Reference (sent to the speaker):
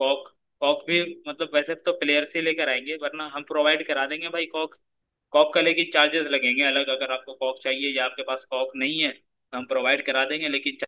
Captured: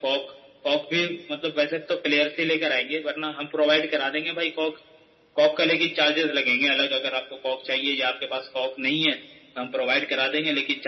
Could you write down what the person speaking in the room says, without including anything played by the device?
none

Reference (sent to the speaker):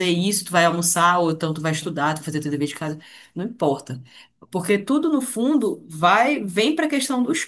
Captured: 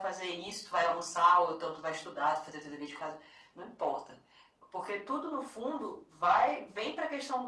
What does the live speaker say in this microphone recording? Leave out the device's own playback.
none

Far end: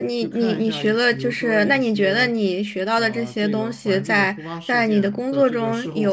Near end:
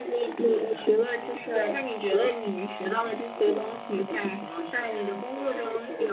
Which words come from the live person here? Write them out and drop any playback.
none

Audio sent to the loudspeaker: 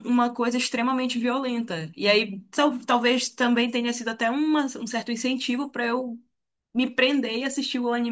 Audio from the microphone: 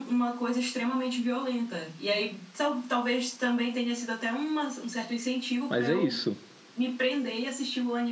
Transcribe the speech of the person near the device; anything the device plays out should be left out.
mas é isso.

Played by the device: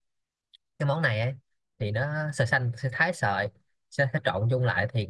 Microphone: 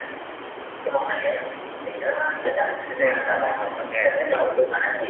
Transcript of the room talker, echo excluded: C là phở bò hoặc là phở gà

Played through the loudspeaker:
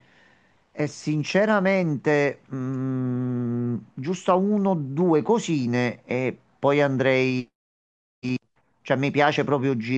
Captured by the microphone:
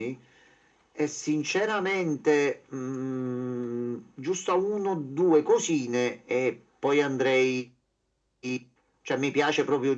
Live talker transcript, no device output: none

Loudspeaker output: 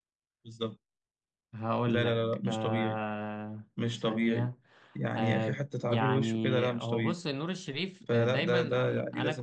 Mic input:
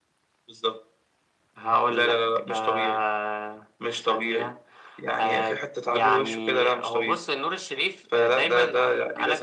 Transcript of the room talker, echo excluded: none

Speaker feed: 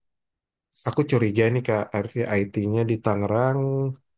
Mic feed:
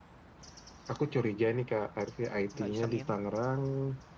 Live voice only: nggak isengin

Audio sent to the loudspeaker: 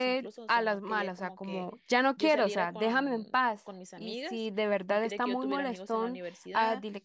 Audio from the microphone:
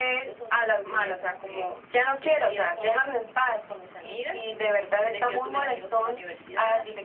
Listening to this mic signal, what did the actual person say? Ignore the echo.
none

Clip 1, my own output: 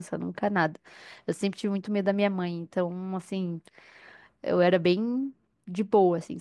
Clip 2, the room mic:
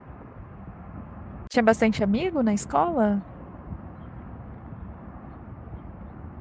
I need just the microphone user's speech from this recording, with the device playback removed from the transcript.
tinha bastante amigo na escola?

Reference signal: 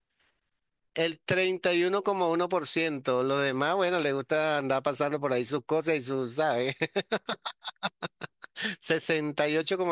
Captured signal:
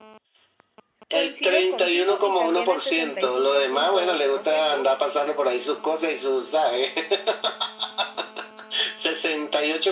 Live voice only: Coincido contigo y también el sesenta y cinco punto dos por ciento

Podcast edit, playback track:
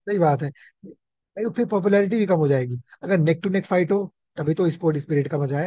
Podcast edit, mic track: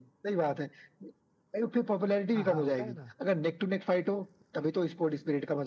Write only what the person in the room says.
हाँ हाँ होता है ना

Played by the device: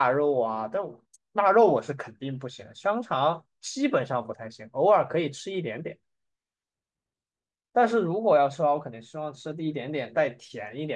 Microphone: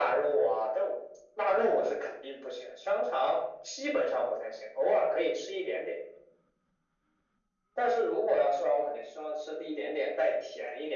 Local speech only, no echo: none

